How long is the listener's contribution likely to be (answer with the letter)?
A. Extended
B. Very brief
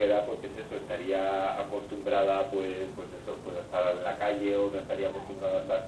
B